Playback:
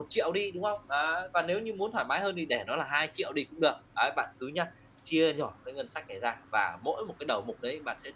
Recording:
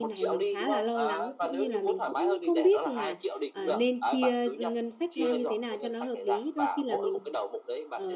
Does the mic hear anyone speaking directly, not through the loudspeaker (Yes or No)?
Yes